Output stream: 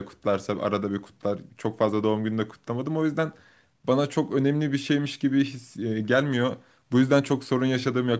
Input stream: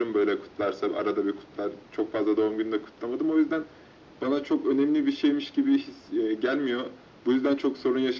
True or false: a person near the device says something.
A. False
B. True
A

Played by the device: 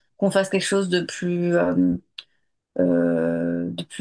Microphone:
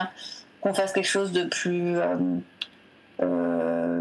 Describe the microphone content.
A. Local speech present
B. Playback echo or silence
B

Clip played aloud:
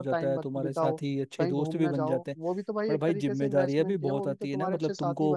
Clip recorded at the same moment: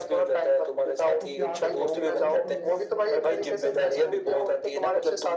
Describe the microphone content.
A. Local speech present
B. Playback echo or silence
A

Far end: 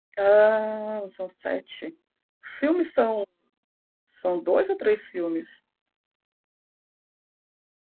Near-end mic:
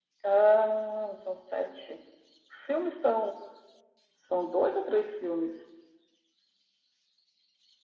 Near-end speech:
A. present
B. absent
B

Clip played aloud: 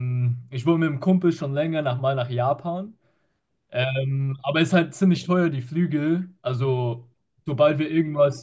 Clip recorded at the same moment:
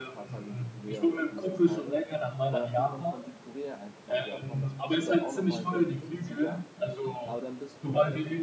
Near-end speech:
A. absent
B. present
B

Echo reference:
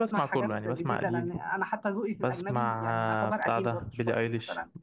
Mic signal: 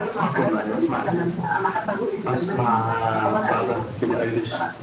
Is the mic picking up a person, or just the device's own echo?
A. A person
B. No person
B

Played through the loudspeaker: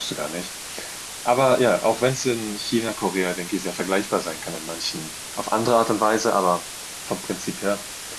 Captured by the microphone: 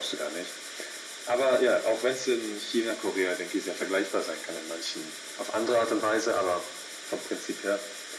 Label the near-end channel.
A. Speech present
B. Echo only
B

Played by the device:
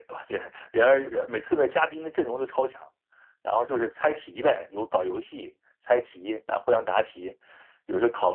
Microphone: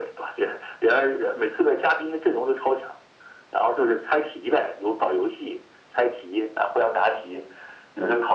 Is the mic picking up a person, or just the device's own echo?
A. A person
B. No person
B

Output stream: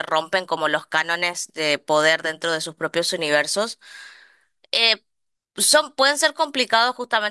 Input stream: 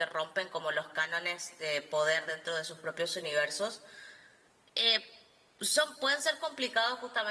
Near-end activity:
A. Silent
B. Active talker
A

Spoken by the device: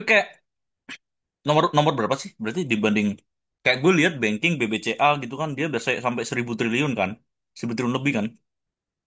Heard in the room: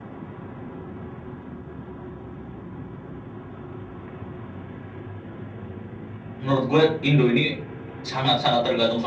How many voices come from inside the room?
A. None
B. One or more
B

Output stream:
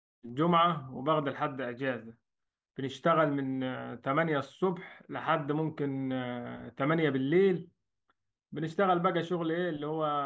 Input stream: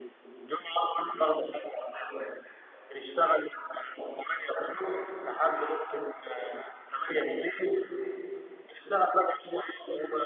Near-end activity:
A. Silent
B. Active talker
A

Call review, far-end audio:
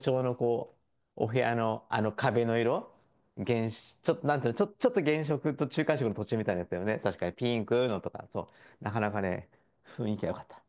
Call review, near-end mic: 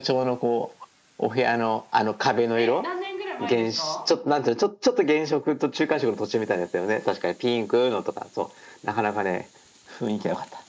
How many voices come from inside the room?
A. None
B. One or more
B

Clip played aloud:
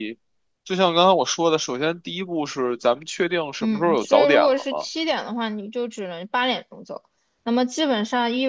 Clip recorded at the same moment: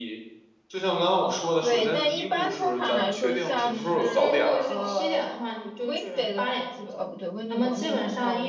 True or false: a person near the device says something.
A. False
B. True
B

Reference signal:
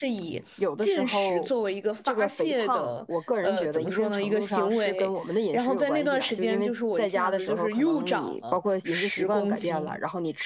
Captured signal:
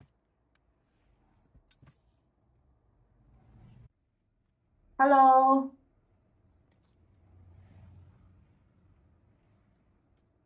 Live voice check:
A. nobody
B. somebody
B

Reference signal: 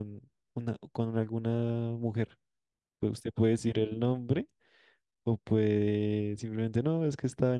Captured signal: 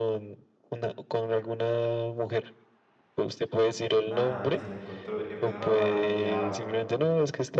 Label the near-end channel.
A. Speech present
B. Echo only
A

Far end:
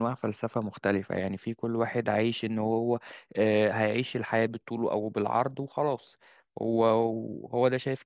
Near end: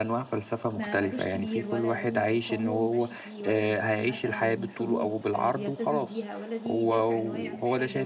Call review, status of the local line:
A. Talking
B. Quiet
A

